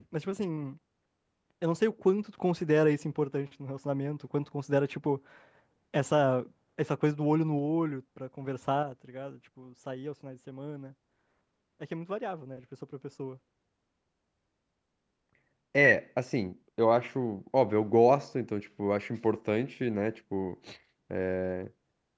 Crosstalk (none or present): none